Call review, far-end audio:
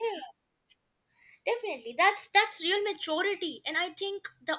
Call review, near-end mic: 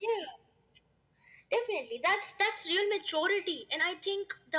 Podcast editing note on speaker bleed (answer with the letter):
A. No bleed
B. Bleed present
B